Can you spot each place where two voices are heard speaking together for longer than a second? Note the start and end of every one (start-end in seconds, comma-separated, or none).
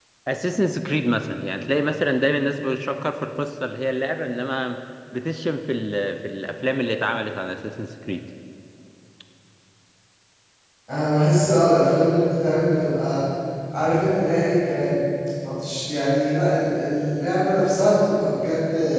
none